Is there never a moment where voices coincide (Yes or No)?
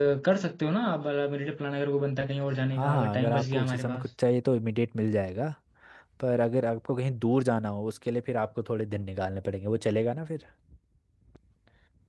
No